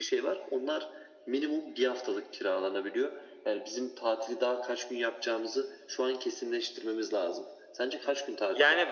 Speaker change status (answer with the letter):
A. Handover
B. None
A